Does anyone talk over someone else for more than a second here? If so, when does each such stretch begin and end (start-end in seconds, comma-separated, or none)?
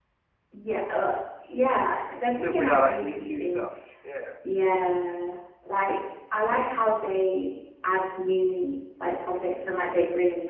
2.3-3.7